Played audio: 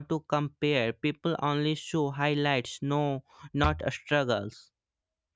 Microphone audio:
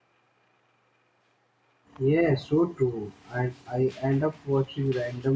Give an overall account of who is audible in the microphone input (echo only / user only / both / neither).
user only